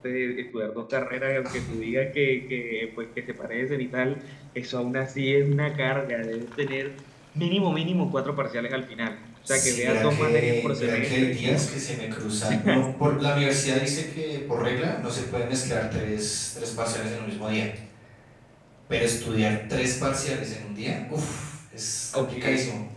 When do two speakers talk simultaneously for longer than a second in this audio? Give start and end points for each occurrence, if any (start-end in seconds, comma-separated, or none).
9.5-11.8